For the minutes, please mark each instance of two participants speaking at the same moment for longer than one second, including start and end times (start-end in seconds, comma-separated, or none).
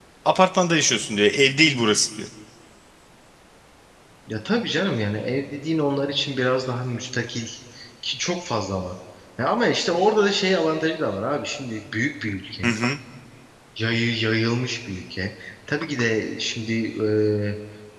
none